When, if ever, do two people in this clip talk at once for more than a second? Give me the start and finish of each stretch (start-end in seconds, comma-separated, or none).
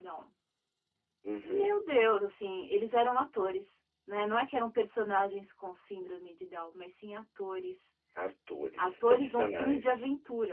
8.8-10.0